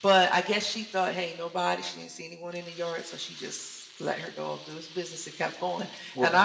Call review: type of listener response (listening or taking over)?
listening